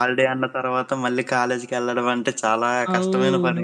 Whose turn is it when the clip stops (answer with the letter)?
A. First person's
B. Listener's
B